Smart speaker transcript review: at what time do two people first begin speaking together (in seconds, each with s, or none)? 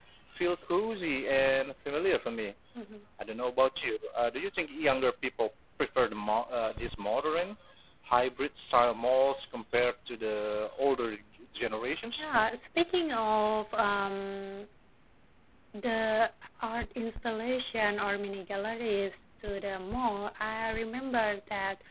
none